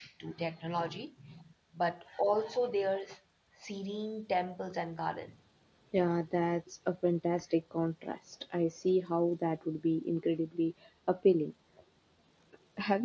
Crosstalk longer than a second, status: none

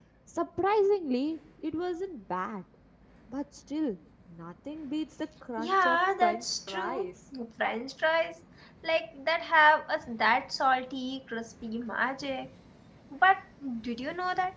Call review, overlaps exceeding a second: present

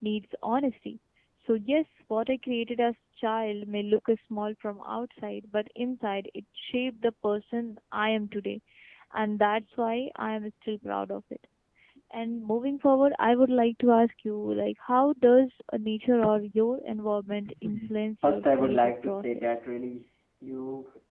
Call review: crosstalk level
present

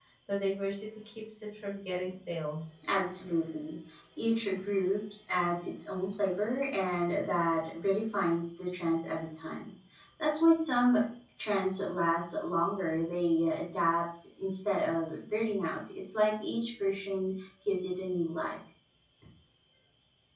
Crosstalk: none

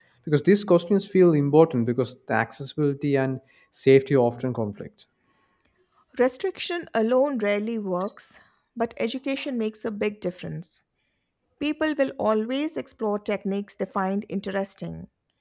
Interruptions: none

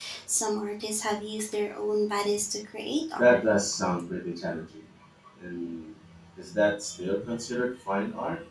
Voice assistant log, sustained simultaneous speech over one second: none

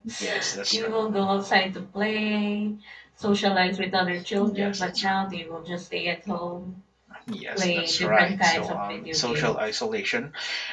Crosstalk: present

